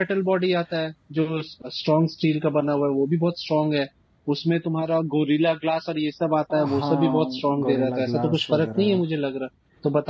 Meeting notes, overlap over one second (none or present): present